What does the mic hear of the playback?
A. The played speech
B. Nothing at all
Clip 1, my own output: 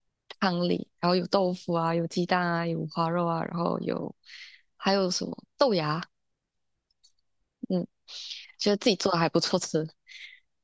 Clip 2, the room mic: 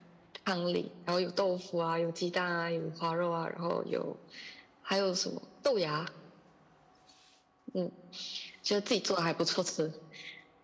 A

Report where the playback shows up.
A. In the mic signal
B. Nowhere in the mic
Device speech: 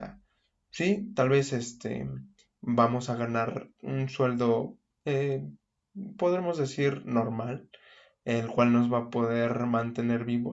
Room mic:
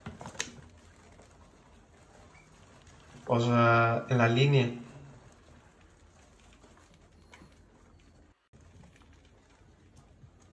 B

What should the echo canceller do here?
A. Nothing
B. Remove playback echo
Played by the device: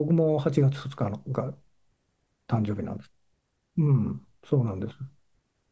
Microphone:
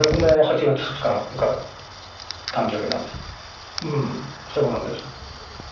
B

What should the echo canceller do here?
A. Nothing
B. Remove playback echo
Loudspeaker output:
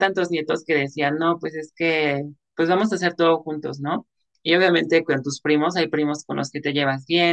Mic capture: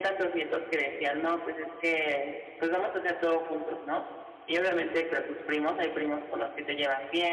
B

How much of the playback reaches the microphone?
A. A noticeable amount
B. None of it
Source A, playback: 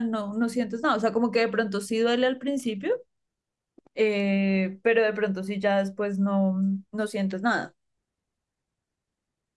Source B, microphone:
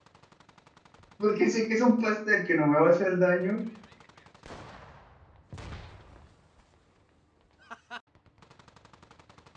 B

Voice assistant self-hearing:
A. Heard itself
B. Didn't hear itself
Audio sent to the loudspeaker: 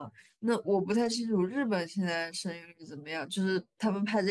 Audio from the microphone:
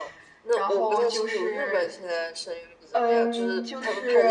A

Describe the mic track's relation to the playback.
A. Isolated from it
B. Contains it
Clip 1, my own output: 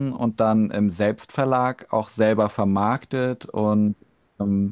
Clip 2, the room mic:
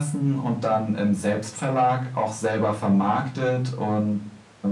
B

